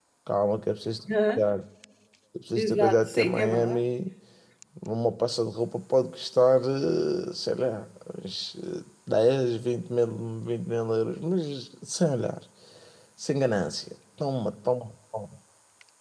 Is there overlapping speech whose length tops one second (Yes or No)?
Yes